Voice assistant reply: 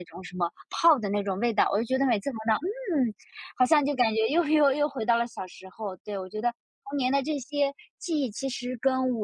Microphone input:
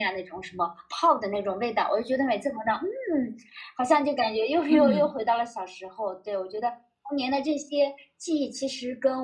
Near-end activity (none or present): present